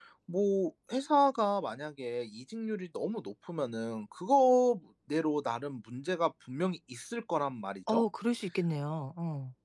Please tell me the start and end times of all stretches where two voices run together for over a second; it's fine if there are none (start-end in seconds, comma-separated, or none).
none